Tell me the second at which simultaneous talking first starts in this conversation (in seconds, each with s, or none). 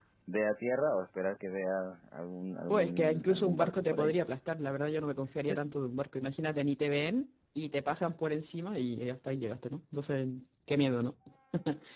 2.7 s